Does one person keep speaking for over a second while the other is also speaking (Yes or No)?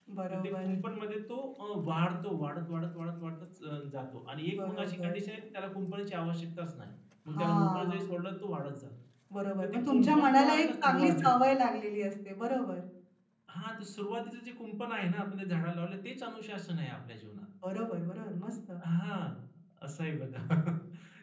Yes